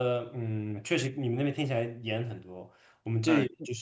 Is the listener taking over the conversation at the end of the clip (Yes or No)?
No